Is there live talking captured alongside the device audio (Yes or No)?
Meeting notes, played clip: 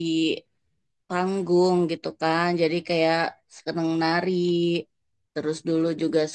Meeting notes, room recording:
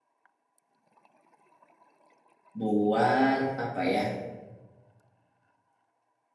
Yes